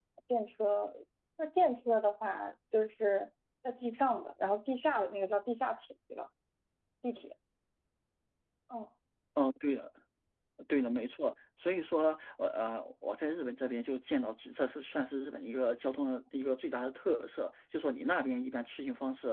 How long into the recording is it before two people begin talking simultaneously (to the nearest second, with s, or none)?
none